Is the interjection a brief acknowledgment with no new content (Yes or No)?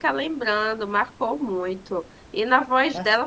Yes